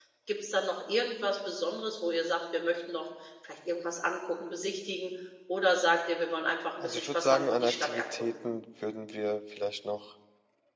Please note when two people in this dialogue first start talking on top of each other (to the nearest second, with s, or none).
7 s